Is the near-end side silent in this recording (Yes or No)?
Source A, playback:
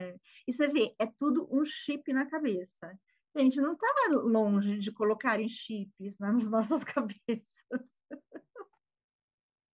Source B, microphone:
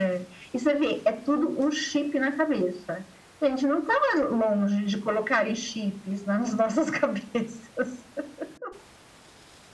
Yes